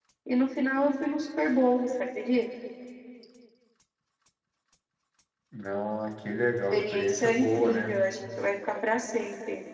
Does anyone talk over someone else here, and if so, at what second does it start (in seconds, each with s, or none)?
6.7 s